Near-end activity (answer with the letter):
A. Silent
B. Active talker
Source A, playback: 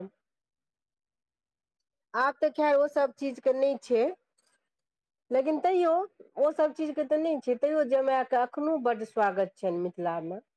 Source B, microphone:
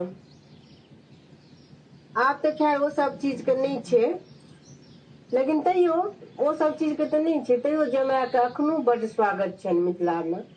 A